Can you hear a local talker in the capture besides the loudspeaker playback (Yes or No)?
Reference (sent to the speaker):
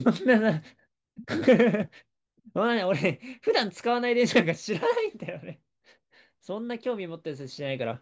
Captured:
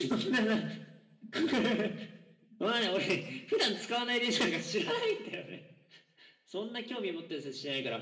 No